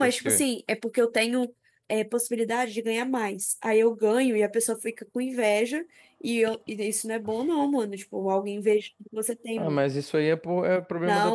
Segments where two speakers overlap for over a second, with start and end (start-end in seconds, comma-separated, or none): none